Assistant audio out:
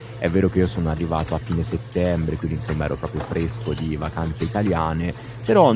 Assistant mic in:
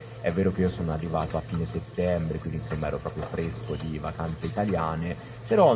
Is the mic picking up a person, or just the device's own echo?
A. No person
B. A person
A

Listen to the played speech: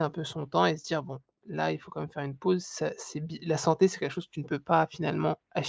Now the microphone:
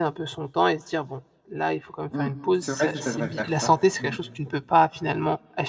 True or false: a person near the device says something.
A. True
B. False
A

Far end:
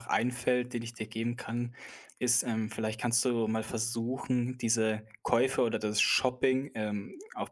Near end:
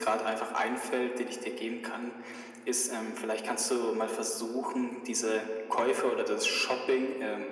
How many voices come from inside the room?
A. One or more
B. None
B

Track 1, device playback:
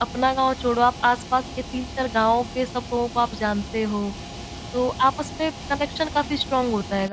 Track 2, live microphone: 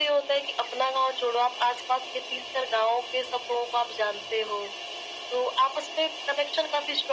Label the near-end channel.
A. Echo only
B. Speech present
A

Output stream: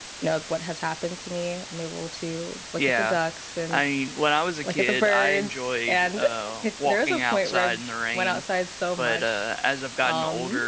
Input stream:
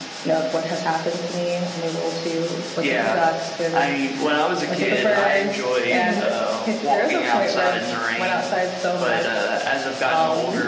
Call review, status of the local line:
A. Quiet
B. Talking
B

